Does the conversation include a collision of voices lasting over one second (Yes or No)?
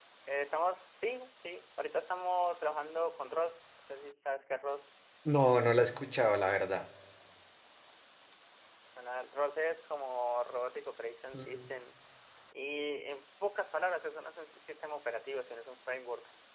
No